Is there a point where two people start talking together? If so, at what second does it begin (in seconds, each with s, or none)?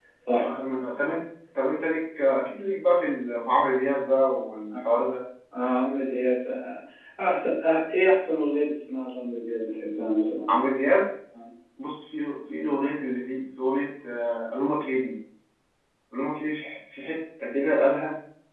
none